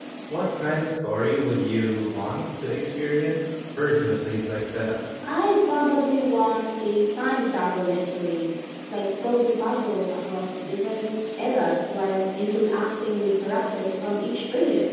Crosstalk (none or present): none